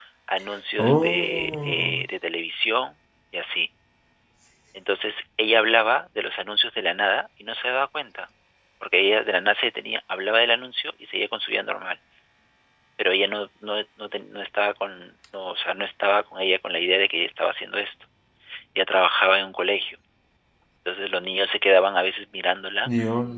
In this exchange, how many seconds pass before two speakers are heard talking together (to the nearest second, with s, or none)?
1 s